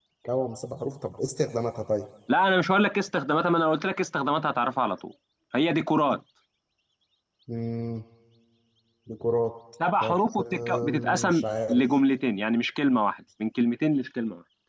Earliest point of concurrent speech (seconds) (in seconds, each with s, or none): 10.0 s